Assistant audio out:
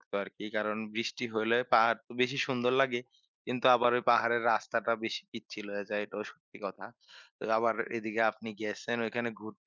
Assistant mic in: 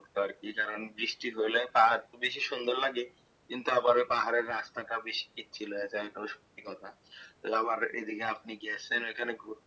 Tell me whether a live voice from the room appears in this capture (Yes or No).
No